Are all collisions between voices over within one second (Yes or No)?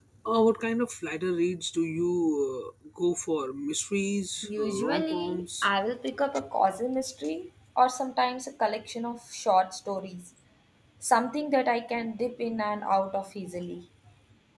No